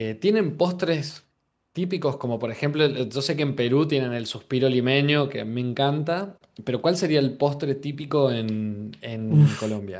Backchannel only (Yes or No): No